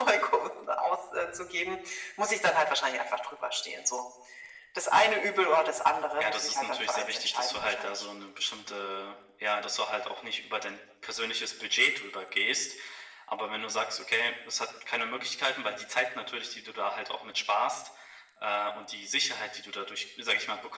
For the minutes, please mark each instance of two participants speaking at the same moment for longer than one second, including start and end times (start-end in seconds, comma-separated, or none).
6.2-7.9